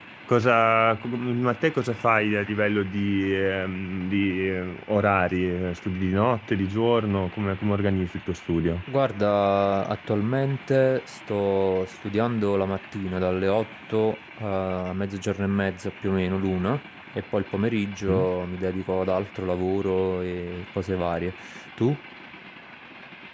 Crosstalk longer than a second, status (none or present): none